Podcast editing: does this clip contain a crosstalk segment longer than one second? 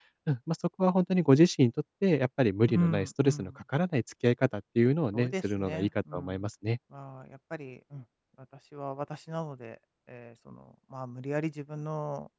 Yes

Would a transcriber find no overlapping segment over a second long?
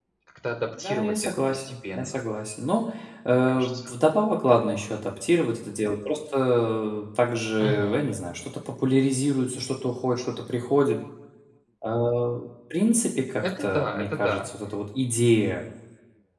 No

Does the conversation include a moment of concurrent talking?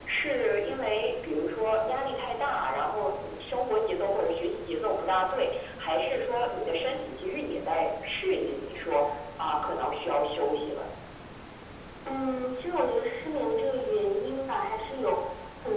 No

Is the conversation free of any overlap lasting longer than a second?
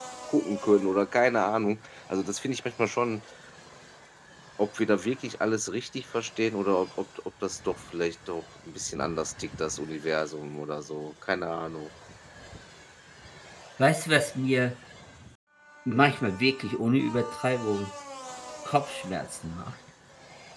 Yes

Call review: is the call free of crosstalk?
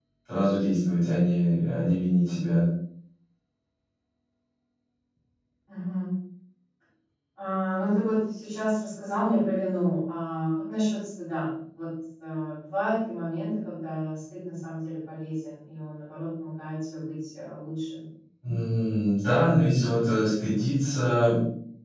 Yes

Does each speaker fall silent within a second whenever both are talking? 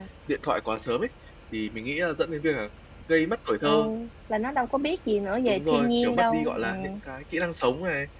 No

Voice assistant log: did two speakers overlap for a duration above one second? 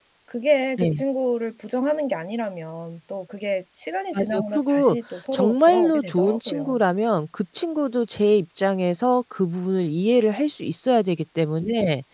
Yes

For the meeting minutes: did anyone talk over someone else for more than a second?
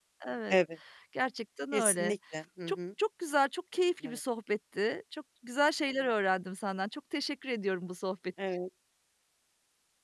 No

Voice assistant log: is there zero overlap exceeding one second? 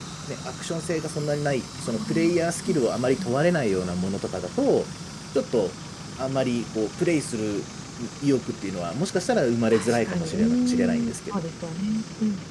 No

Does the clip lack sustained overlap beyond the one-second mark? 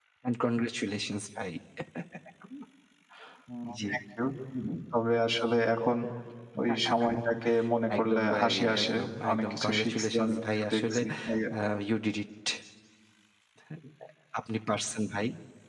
No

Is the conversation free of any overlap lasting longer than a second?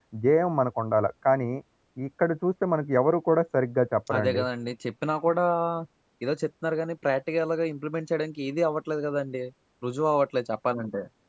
Yes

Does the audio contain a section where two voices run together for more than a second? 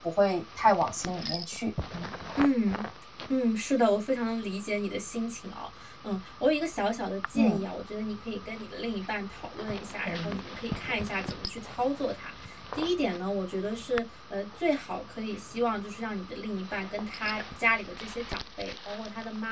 No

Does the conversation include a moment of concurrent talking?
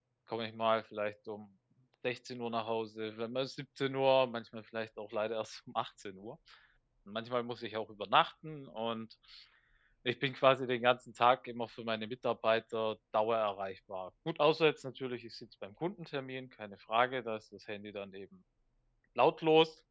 No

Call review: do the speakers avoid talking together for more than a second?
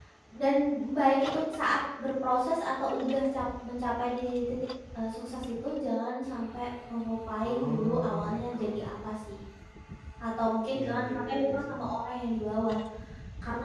No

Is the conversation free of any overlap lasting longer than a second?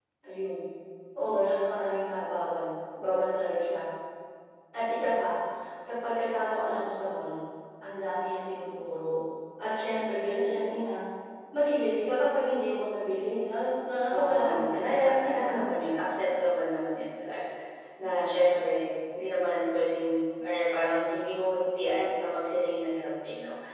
No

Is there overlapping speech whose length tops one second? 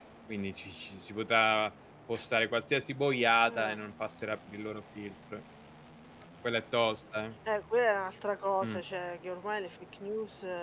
No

